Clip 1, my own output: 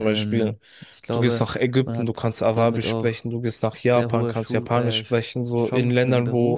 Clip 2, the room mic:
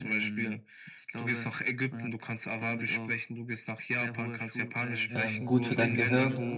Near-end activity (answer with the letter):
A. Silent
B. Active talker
B